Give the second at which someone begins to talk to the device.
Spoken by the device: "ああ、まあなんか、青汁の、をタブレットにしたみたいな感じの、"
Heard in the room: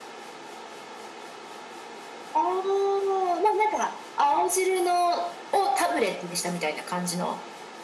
none

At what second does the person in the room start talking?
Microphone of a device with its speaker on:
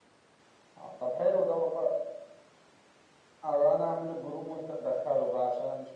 none

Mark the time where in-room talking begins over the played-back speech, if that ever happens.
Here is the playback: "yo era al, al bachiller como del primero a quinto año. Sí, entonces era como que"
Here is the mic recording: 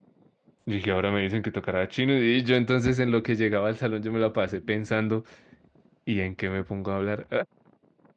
0.7 s

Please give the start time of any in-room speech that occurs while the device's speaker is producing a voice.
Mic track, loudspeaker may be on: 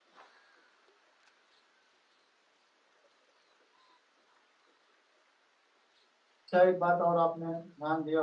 6.5 s

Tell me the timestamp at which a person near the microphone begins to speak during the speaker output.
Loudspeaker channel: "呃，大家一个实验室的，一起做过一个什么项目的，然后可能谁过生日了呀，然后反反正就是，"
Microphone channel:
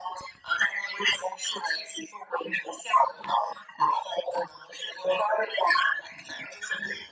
none

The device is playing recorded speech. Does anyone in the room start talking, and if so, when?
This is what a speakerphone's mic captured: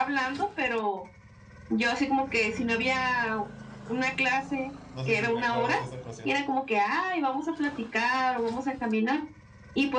4.9 s

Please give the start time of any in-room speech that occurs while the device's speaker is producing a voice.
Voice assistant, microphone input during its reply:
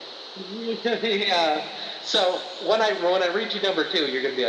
none

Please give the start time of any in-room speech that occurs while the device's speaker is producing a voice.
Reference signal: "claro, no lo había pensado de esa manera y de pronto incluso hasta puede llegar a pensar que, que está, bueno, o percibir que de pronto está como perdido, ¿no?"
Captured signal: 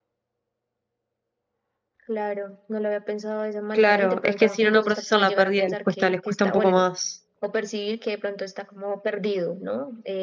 3.7 s

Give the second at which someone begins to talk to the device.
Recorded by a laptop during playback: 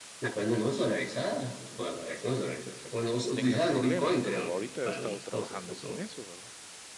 3.3 s

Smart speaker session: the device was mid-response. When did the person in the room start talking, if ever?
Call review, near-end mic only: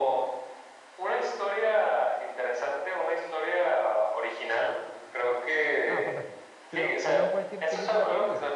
5.8 s

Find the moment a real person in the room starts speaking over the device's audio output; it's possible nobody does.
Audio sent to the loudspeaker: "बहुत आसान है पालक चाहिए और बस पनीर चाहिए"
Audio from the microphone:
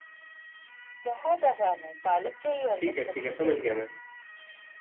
2.8 s

